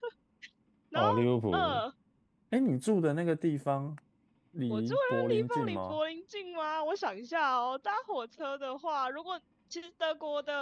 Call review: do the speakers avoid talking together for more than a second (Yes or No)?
No